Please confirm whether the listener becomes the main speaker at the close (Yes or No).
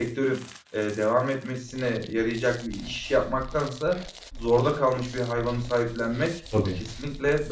No